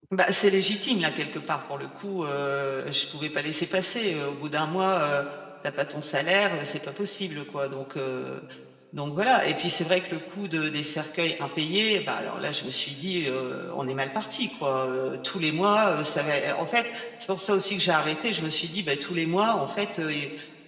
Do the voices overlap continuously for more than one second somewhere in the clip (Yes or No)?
No